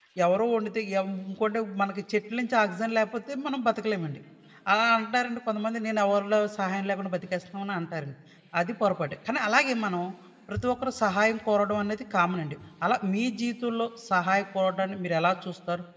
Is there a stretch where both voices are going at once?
No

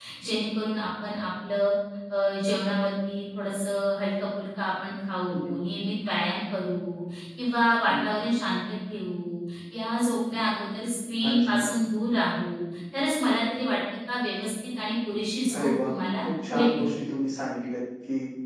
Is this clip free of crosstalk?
No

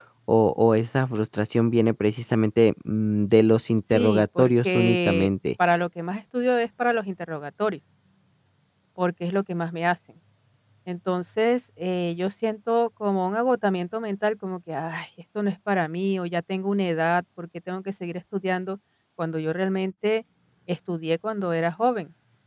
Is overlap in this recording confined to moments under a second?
No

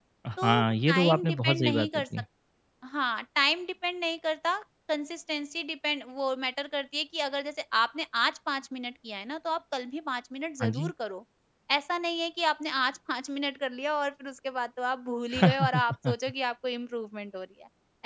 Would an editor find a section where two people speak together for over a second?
Yes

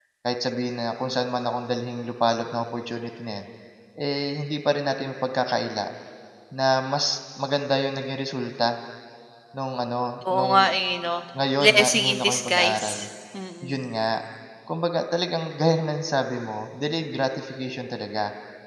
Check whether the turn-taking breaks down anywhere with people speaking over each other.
Yes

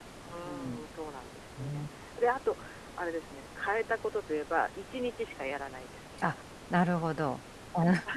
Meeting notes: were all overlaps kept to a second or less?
Yes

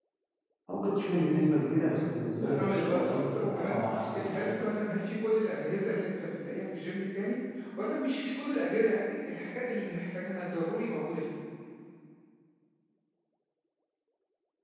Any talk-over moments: Yes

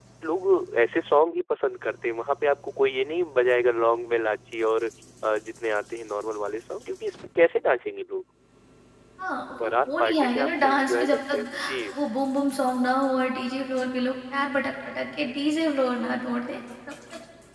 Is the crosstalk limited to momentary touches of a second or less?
No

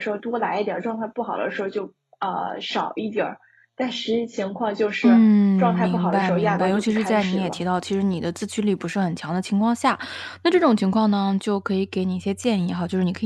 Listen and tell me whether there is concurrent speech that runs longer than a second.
Yes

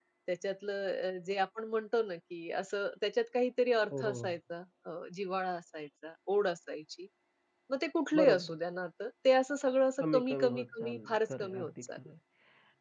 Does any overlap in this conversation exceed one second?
Yes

